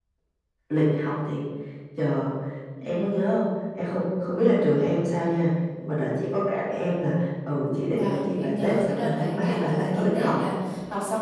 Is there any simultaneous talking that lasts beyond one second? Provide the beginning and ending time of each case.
7.9-10.4

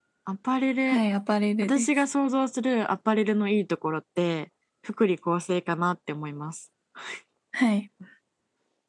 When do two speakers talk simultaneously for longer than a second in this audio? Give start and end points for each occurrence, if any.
none

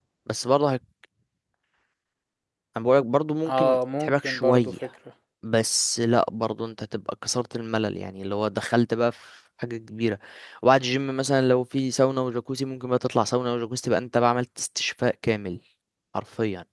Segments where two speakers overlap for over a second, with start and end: 3.5-4.7

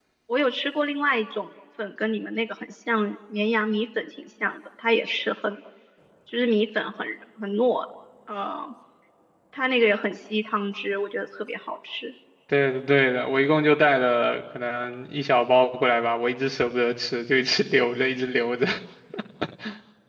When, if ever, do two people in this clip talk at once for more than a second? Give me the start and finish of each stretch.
none

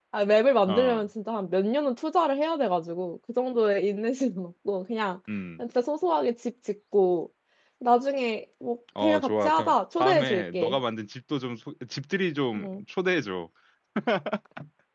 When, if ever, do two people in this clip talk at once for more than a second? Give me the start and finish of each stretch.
9.0-10.8

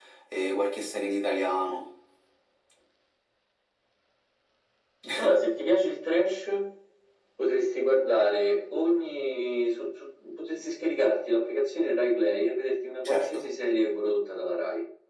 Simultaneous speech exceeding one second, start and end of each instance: none

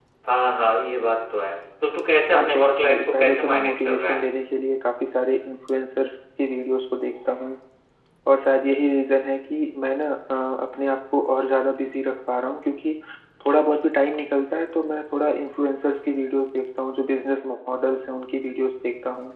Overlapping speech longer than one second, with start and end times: 2.4-4.3

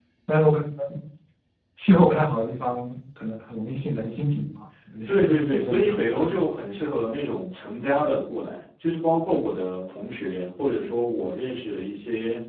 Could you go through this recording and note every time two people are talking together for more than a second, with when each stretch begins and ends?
5.1-6.3

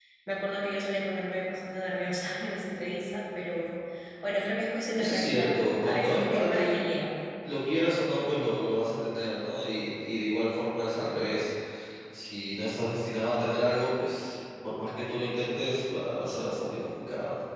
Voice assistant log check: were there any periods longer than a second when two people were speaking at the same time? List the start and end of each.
5.0-6.8

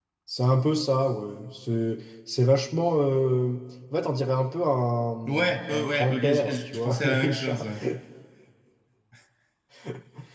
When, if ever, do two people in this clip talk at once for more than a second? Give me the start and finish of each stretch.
5.3-7.6

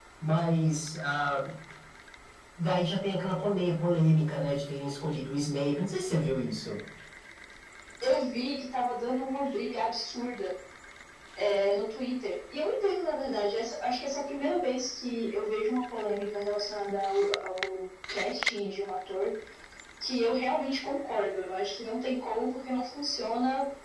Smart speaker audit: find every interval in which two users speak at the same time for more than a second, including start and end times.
none

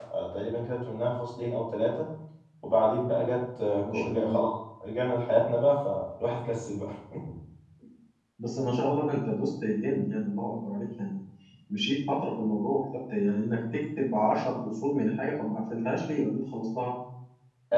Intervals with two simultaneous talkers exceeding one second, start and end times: none

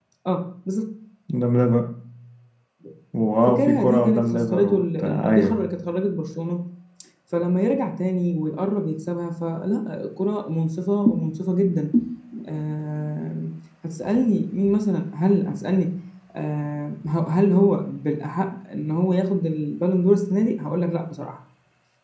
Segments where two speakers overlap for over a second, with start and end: 3.5-5.6

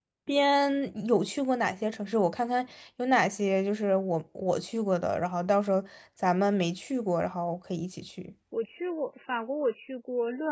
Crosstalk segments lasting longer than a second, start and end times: none

